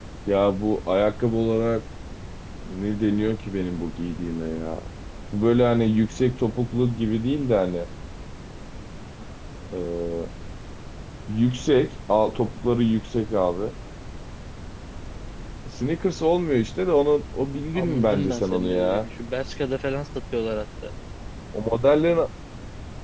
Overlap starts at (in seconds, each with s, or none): 17.8 s